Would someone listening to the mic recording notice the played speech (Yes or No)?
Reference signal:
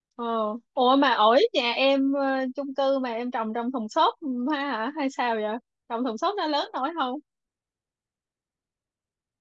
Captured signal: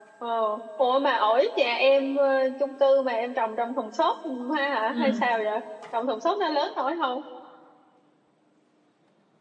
Yes